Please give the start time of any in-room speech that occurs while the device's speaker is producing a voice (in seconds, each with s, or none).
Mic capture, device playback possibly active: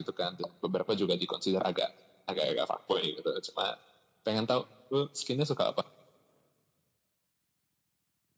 none